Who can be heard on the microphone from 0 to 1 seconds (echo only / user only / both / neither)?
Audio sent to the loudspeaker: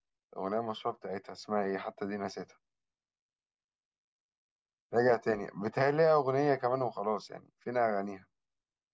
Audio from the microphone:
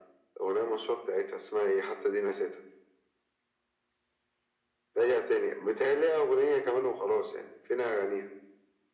echo only